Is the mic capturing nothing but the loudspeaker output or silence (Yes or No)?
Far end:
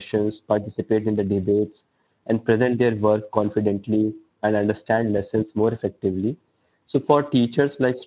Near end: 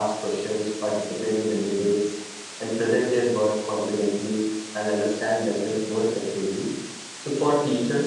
Yes